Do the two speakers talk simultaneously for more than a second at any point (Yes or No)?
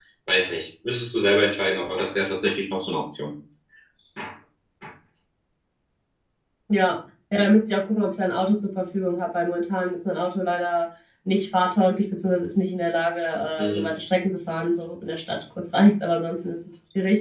No